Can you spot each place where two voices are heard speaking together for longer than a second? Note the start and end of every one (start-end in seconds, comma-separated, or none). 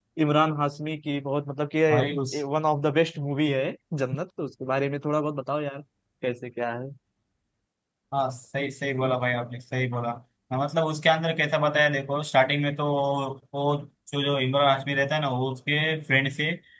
none